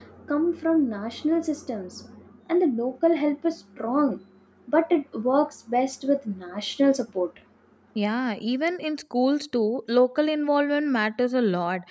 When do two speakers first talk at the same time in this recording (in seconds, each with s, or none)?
none